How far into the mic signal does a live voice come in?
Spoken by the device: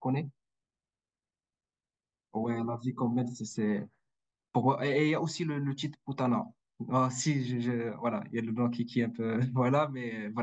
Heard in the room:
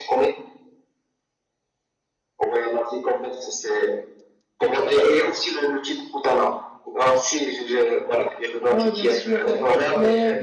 8.7 s

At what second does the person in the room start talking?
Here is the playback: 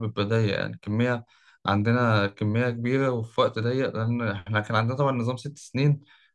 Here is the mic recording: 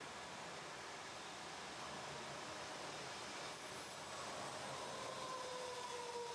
none

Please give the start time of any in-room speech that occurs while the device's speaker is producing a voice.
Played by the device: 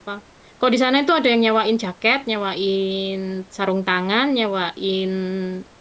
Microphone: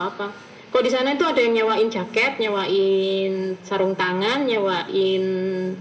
none

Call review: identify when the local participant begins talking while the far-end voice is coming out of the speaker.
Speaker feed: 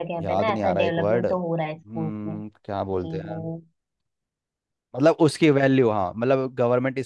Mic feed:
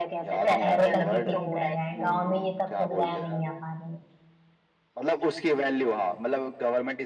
0.5 s

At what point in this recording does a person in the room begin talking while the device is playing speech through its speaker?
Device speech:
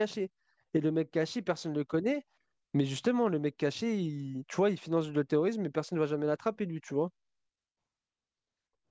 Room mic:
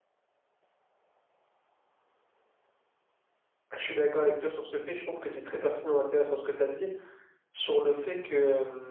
3.8 s

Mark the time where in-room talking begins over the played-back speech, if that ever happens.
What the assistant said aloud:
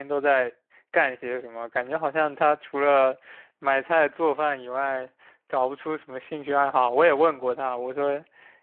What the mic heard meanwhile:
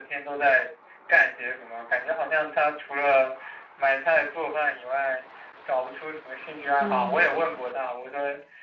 6.8 s

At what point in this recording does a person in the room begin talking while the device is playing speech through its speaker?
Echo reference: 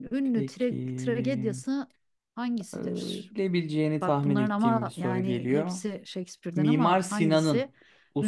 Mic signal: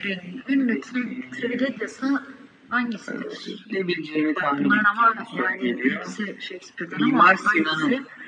none

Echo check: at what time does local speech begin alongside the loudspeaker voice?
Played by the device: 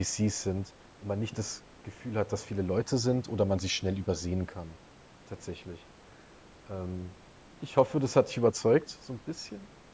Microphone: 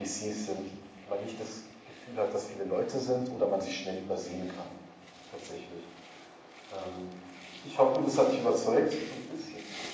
none

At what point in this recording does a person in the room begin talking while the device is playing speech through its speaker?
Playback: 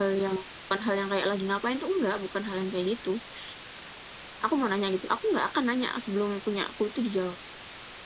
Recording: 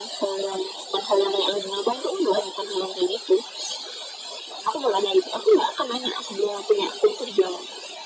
none

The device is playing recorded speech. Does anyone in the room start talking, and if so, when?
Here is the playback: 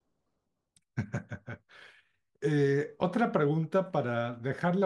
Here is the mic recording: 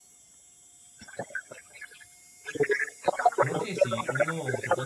3.4 s

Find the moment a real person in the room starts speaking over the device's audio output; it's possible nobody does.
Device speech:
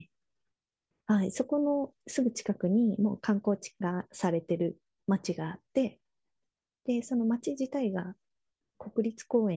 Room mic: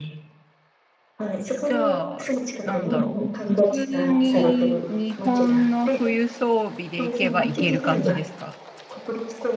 1.6 s

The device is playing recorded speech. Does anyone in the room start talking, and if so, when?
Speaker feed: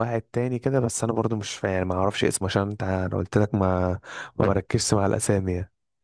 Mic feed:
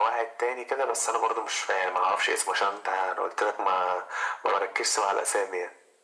none

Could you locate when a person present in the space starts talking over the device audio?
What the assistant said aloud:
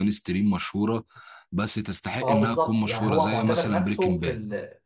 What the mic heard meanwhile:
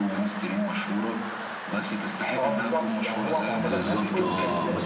3.5 s

